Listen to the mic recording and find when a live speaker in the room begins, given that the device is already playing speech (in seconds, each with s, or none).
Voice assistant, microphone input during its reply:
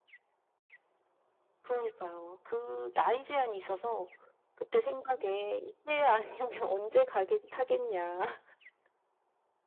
none